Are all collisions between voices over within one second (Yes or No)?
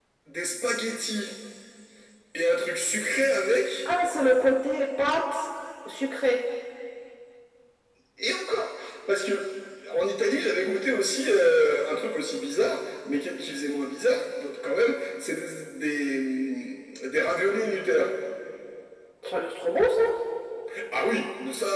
Yes